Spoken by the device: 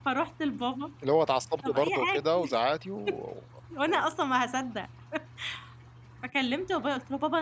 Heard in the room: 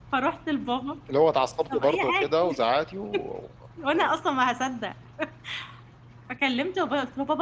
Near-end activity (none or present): none